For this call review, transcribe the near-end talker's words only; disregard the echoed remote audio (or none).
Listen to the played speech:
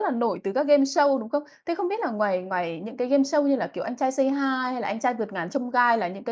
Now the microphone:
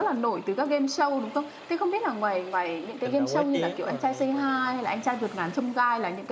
“Tình Đầu Quá Chén” rồi này, rồi này.